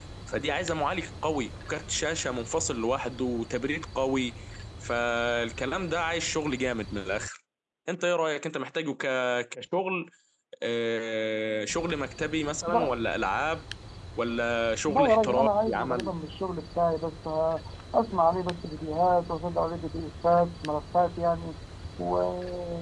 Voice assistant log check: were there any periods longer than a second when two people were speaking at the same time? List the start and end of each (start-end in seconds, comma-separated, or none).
14.9-16.1